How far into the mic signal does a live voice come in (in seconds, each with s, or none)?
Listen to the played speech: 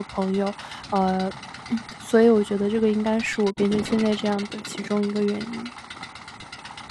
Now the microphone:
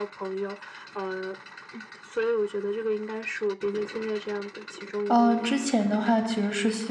5.1 s